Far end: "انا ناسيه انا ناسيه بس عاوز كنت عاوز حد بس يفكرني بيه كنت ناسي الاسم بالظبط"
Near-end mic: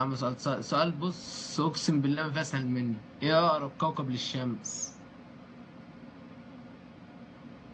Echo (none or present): none